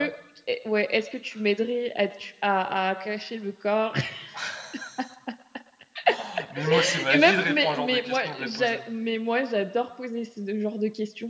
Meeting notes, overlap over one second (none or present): present